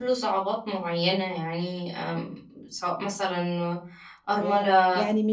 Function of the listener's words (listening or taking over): taking over